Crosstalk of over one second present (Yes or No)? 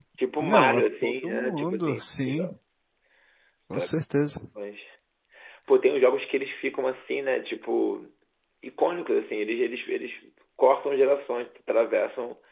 Yes